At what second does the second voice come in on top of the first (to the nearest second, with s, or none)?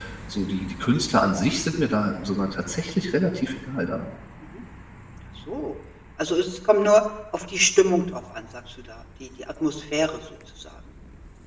none